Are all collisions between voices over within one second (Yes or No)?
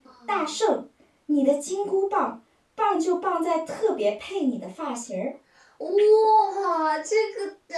Yes